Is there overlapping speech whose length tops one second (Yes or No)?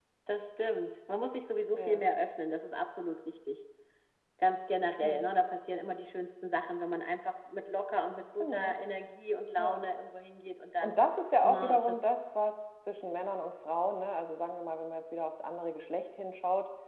No